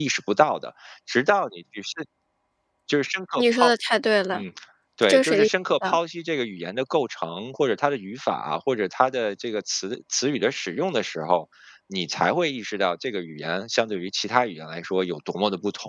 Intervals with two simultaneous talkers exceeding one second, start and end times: none

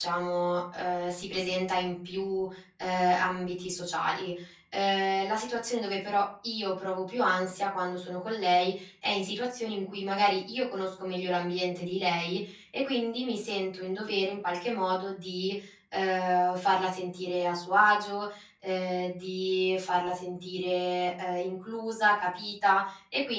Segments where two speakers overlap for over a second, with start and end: none

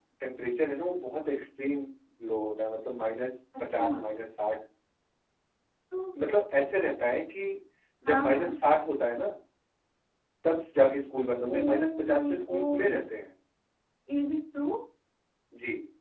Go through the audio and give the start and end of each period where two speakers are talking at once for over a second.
11.4-13.0

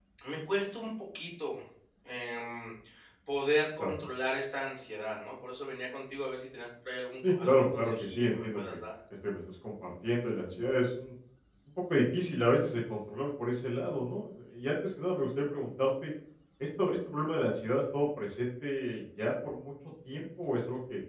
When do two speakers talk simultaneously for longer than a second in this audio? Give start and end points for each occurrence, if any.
7.3-8.8

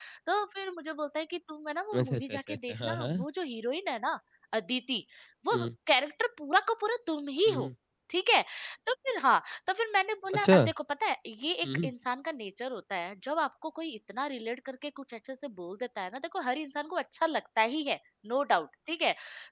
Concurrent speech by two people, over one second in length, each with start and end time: 1.9-3.2

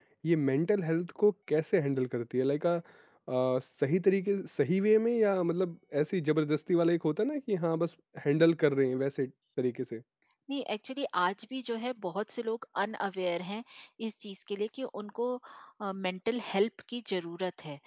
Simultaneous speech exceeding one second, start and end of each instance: none

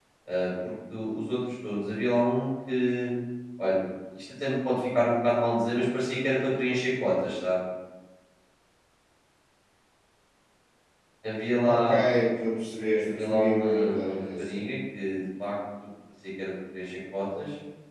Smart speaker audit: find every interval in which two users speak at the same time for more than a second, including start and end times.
13.0-14.6

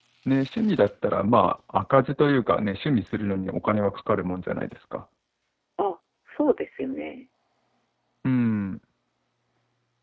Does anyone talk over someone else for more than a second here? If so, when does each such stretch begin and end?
none

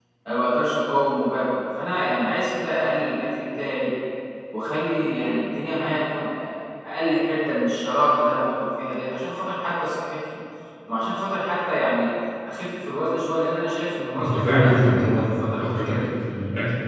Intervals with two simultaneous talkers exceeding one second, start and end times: 14.2-15.9

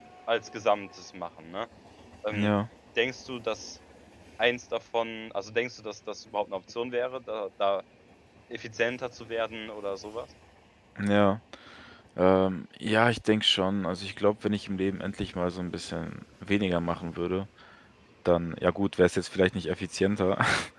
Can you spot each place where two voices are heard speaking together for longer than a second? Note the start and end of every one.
none

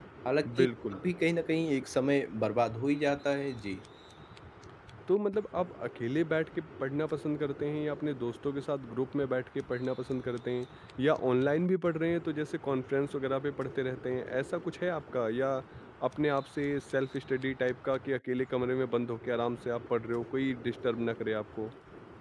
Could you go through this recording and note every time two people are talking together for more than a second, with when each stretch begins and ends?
none

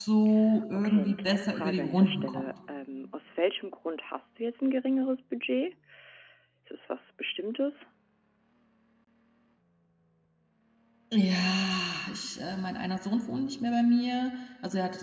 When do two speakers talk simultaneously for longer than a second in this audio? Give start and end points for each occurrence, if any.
0.8-2.5

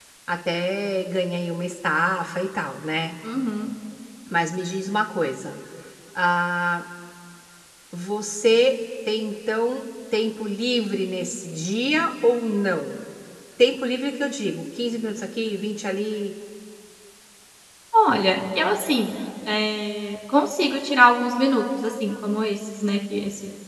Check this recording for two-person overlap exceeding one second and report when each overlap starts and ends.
none

